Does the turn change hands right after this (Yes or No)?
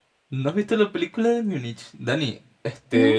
No